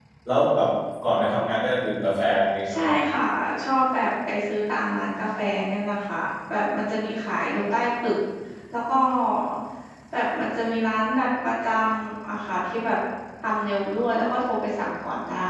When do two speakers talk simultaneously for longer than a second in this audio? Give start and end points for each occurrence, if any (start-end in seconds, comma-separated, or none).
none